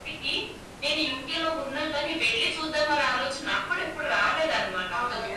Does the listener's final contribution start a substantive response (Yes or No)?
Yes